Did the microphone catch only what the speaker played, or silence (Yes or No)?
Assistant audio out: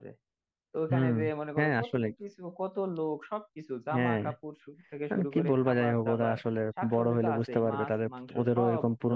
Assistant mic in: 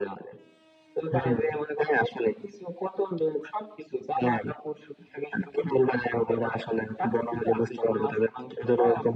Yes